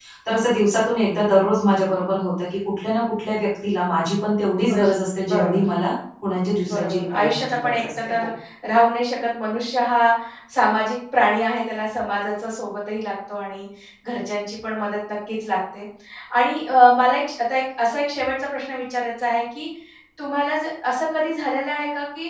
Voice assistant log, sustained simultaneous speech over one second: present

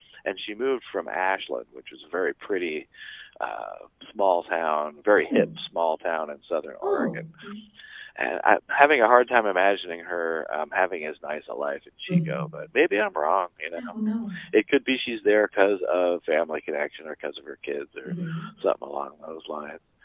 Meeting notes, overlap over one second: none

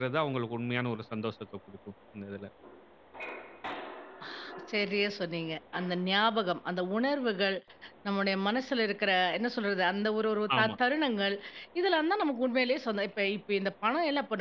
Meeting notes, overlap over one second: none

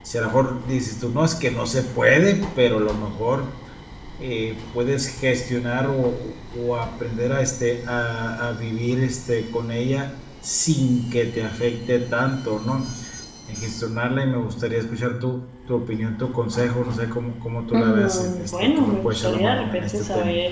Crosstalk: present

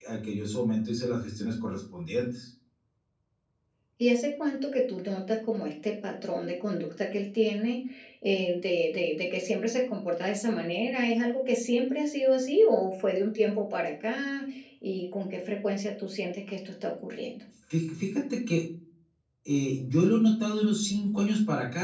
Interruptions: none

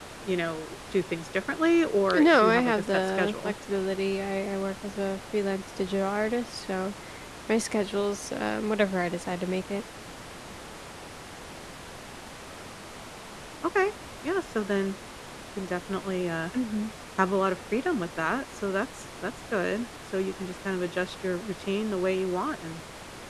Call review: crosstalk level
present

